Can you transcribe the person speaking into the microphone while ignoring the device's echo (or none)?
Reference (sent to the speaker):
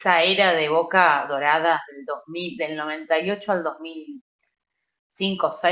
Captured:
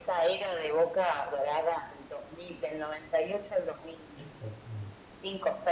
Exactamente.